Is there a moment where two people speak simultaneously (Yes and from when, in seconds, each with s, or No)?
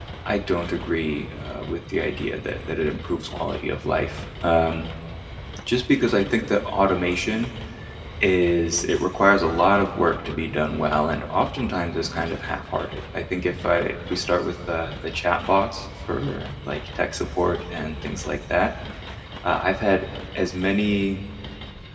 No